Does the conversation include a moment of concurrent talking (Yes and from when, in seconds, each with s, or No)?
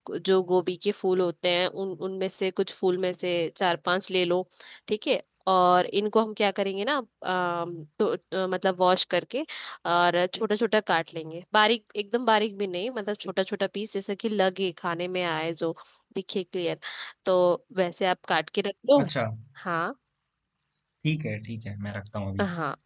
No